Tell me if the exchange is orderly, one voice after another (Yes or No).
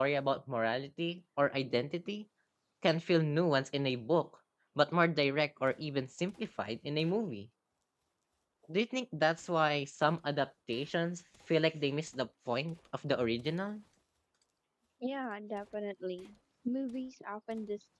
Yes